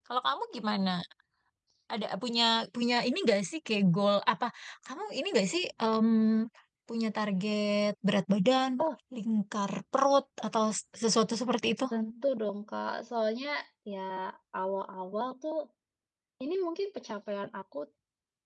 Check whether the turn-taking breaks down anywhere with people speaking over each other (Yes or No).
No